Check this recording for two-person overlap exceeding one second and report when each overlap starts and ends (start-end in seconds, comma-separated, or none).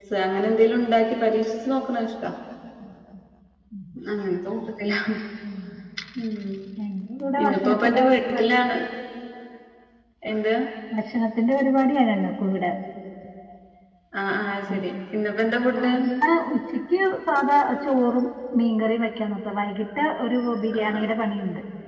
7.4-8.8